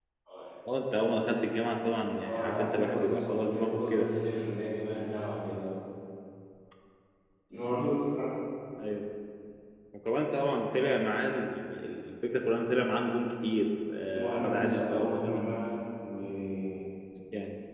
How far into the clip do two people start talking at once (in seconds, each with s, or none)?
2.2 s